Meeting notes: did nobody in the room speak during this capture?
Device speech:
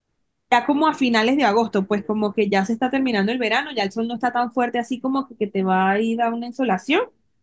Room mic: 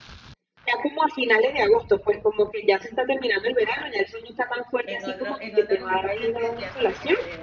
No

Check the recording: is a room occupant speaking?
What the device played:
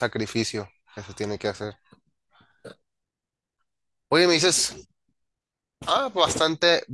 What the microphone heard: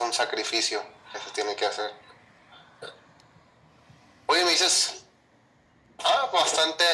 No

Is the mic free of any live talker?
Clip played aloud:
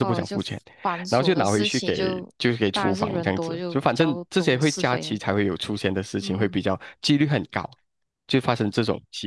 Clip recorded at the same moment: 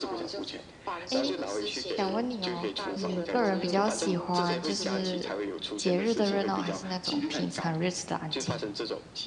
No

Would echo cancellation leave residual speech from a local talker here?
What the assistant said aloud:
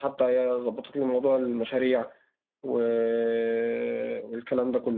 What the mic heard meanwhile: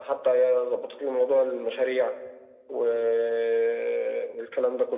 No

